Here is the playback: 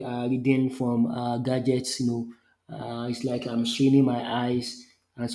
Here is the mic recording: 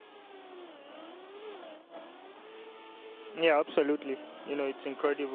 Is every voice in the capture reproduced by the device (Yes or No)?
No